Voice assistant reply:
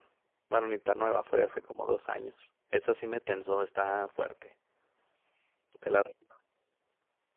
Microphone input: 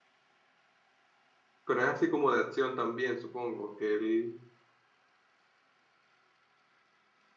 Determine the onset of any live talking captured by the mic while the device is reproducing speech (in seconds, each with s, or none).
1.6 s